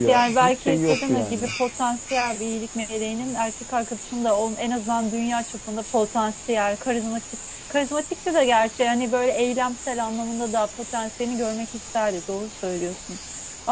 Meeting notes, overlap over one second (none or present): present